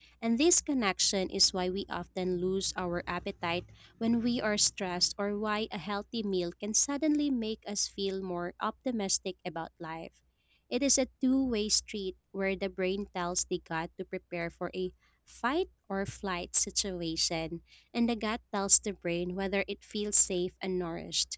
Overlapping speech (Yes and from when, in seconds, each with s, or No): No